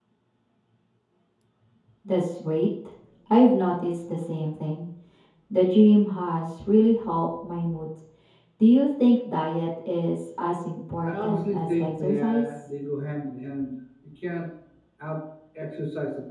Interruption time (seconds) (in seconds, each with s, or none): 11.0 s